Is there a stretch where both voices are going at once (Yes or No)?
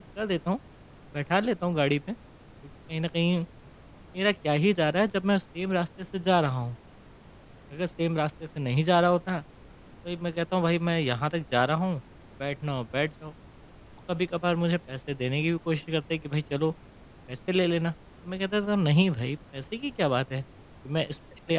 No